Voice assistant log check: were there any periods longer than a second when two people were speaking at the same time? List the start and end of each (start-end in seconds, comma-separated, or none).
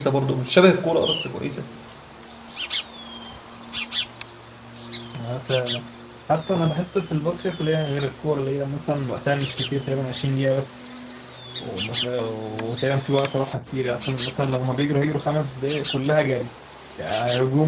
none